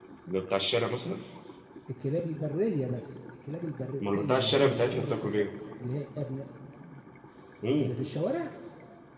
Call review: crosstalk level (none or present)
present